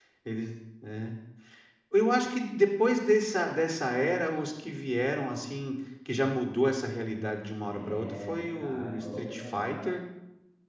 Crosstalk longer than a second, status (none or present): present